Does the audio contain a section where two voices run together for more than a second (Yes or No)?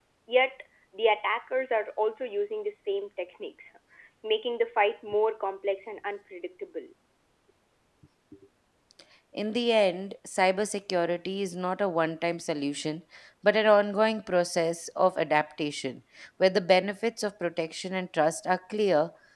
No